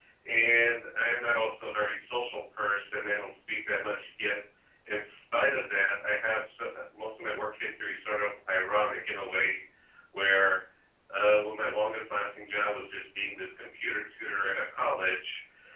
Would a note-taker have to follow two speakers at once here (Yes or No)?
No